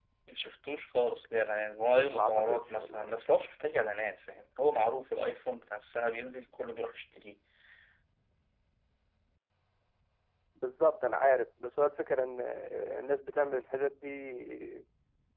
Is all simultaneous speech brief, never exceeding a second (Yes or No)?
No